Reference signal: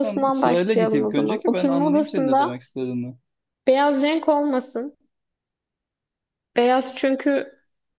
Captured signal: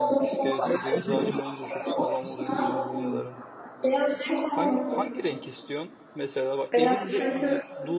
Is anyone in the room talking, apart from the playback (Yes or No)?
Yes